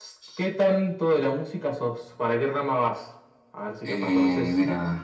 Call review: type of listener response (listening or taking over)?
taking over